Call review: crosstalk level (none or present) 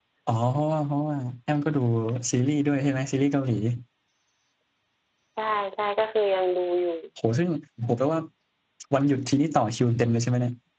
none